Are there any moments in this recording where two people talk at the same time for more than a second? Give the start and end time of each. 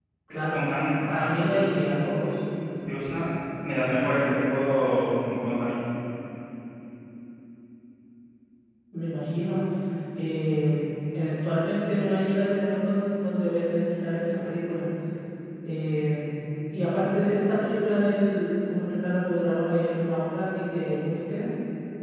none

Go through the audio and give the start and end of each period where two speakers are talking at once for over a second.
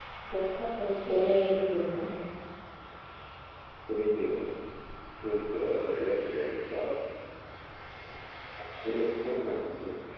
none

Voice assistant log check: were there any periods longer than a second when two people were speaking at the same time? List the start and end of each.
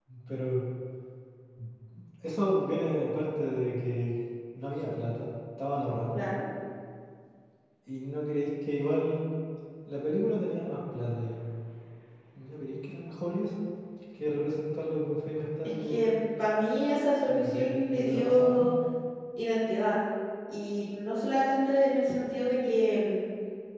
17.3-18.7

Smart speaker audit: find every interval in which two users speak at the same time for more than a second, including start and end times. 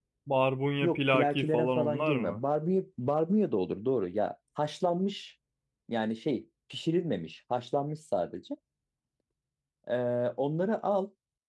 0.8-2.4

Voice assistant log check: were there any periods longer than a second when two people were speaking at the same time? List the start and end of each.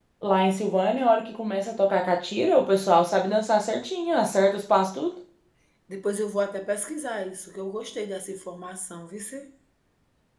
none

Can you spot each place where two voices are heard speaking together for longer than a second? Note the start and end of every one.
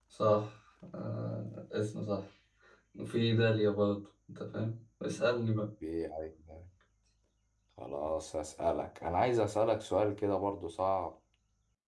none

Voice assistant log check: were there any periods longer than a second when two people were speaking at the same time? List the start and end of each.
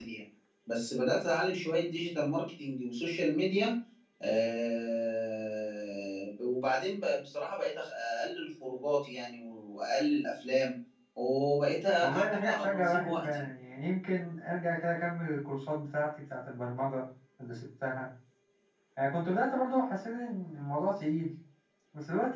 12.0-13.4

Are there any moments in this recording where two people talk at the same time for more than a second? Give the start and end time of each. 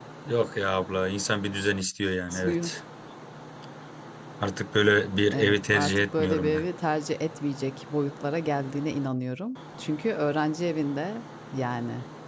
5.3-6.7

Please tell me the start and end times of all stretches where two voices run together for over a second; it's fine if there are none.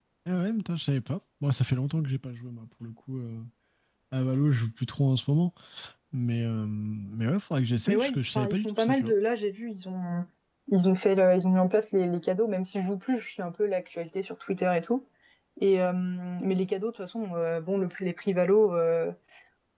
7.9-9.1

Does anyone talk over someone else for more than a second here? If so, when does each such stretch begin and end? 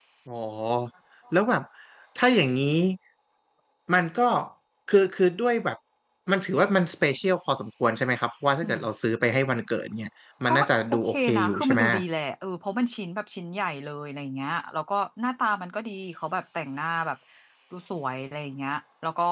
10.5-11.8

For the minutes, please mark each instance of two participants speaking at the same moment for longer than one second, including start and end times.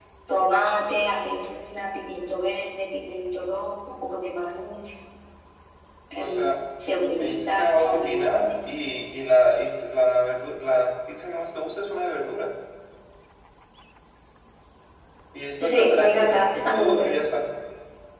7.2-8.8, 15.6-17.1

